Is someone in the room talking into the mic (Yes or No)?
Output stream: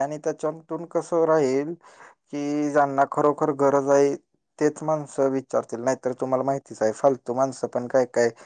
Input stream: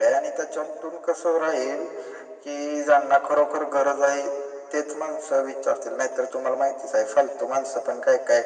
No